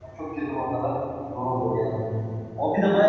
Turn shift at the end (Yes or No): No